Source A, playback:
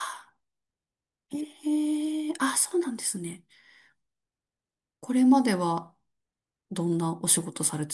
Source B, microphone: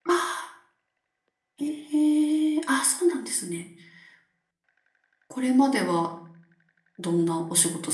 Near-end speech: none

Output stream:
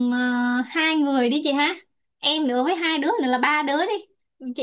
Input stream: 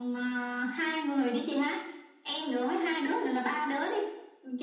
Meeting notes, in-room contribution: none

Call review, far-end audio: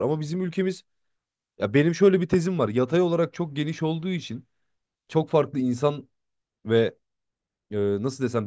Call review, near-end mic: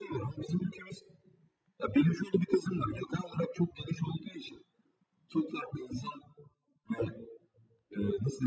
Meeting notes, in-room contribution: none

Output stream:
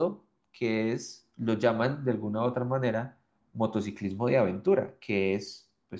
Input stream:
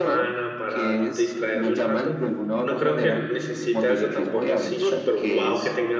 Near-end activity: present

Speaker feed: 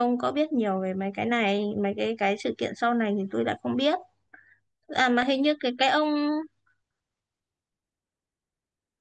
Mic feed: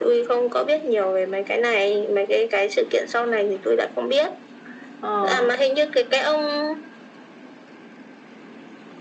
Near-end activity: present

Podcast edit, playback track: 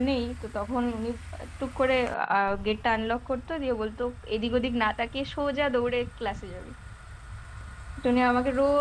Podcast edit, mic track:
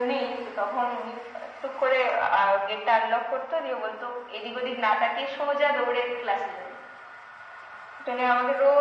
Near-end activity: none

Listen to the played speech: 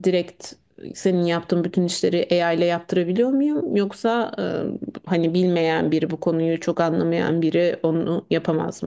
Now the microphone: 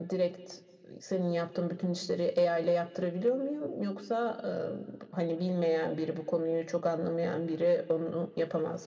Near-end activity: none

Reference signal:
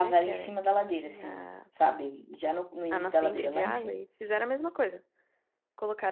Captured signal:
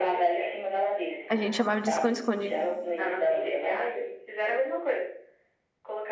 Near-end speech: present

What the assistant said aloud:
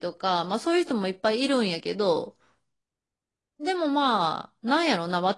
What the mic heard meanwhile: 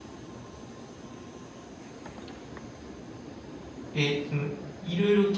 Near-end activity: present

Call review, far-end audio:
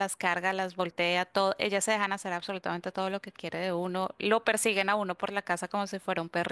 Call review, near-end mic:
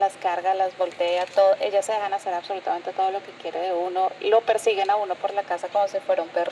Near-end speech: none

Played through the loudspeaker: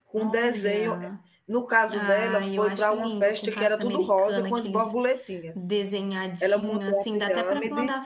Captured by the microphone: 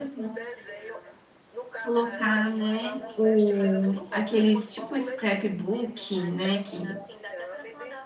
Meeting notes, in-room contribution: present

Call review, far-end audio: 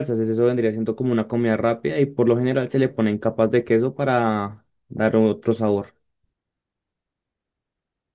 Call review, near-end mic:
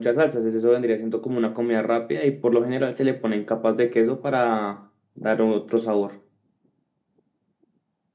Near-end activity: none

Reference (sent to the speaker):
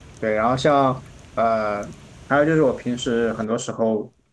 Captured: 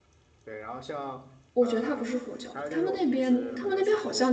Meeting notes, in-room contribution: present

